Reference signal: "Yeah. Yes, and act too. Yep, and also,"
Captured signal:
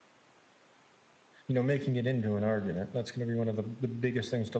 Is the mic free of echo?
Yes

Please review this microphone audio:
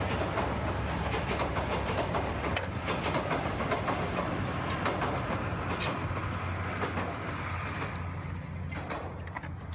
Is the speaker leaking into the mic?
No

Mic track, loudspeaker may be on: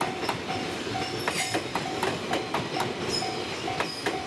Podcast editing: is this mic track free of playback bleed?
Yes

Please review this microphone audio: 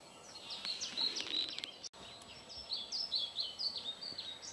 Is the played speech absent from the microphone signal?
Yes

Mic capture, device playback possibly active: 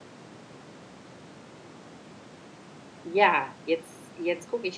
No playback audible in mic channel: Yes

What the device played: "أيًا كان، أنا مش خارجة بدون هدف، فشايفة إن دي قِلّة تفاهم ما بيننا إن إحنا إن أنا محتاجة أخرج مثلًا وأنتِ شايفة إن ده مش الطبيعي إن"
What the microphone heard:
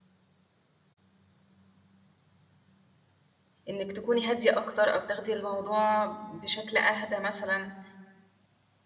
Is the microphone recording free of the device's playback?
Yes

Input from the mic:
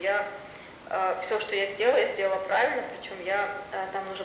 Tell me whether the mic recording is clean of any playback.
No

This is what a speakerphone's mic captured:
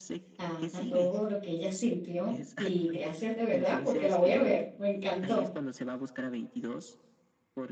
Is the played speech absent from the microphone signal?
No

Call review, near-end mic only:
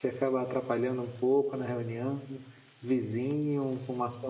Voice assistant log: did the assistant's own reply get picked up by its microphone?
No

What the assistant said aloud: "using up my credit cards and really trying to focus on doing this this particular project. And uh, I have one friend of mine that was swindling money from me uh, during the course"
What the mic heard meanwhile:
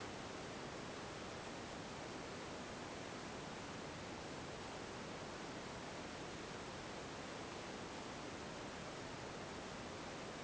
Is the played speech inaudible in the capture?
Yes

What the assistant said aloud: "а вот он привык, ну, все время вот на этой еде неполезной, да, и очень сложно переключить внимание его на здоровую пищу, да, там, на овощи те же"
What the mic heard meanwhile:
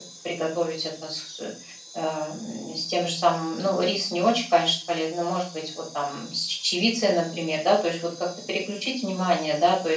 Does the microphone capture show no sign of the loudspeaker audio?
Yes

